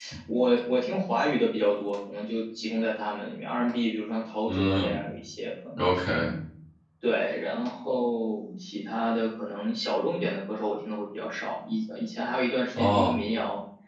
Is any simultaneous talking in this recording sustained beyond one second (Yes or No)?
No